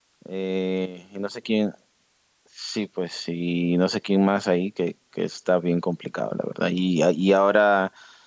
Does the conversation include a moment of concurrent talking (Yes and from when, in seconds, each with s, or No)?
No